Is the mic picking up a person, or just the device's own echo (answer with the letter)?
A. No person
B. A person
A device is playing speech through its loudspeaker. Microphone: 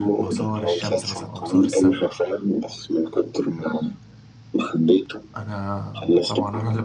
B